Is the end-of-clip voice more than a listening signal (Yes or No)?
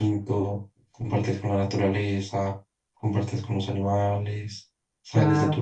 No